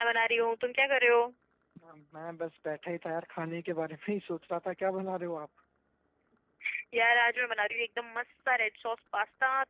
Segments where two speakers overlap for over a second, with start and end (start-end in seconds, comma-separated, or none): none